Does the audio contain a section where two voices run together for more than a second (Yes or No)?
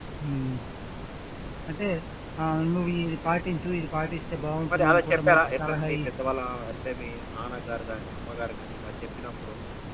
Yes